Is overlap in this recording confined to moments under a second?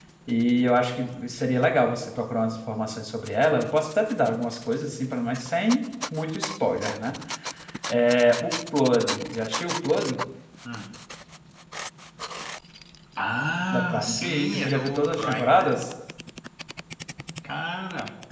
No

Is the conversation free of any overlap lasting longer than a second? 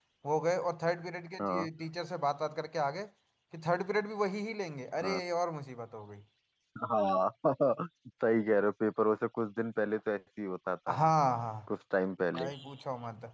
Yes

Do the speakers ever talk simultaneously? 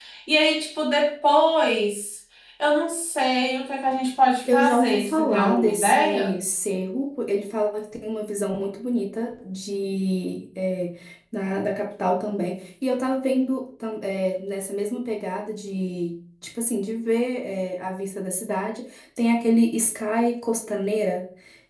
Yes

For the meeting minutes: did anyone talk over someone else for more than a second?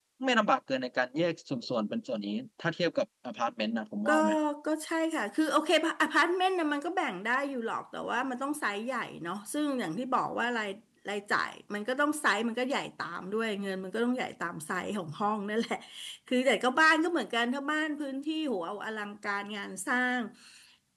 No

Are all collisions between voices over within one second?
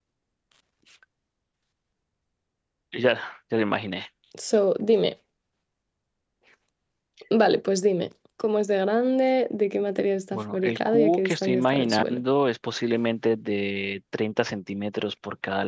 No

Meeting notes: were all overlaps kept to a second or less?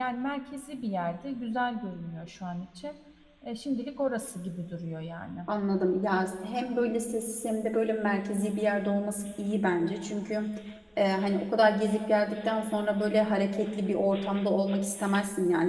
Yes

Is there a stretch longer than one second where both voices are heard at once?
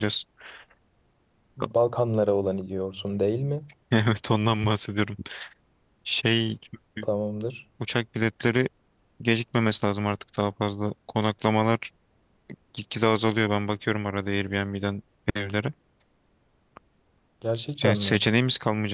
No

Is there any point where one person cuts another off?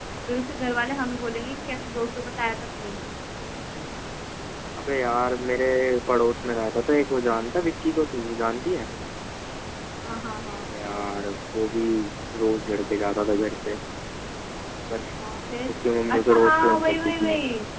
Yes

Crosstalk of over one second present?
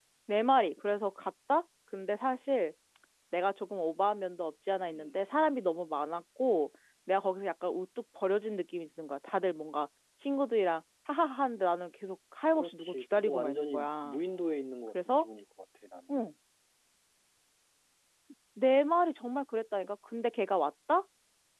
Yes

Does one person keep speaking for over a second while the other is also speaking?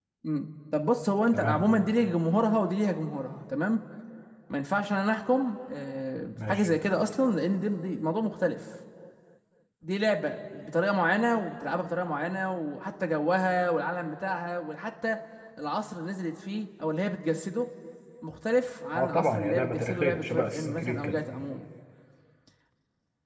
Yes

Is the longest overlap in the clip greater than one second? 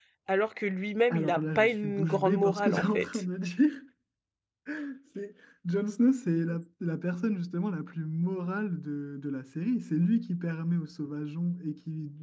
Yes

